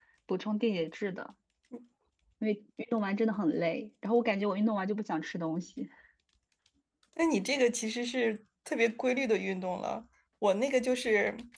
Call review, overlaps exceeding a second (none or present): none